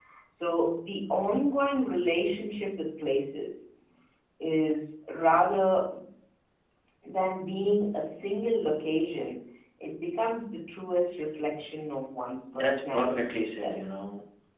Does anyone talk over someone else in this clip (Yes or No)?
Yes